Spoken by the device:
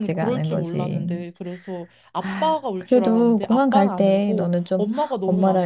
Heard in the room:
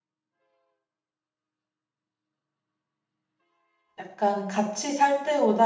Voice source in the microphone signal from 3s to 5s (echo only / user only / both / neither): user only